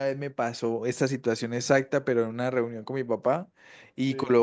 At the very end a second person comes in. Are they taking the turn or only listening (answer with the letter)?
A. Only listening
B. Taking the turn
A